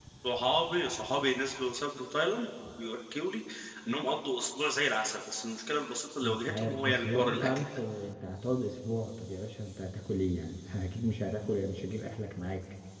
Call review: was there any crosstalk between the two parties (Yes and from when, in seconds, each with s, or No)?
Yes, from 6.2 s